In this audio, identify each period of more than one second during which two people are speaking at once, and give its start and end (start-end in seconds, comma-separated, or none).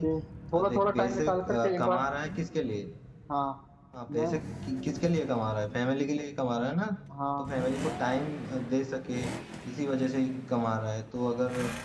0.5-2.0